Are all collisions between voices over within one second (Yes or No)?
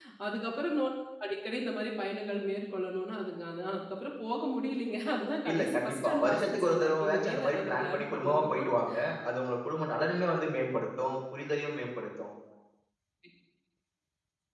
No